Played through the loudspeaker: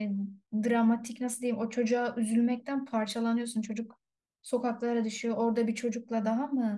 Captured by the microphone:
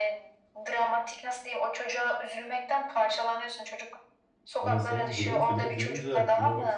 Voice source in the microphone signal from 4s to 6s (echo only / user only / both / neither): both